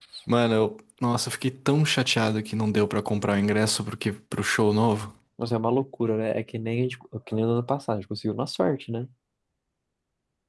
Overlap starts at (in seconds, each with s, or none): none